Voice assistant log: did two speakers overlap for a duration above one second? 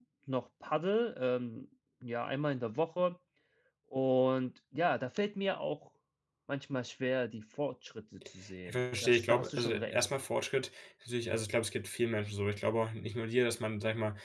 Yes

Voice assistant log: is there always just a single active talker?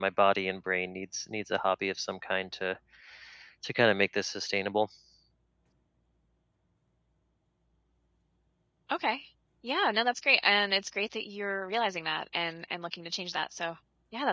Yes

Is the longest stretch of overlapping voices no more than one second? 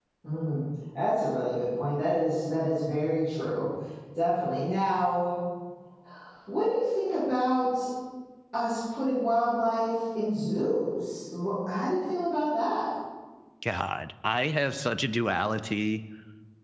Yes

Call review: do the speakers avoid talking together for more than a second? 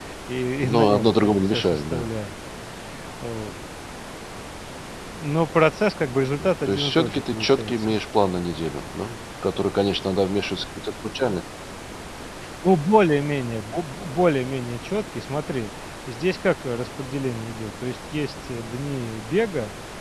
No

